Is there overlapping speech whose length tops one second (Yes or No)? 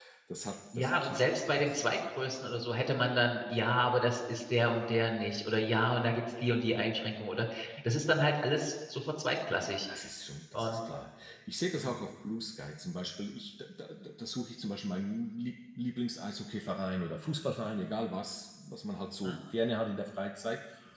No